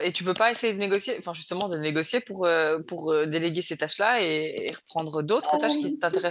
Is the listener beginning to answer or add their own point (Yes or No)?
Yes